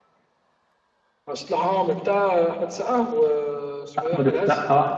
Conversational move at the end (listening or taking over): taking over